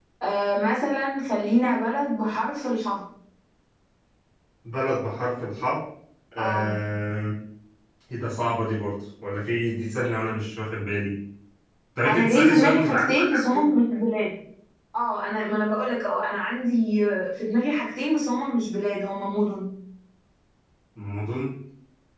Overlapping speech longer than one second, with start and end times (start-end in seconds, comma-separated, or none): 12.1-13.7